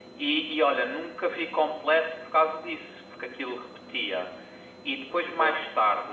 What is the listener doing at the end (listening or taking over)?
listening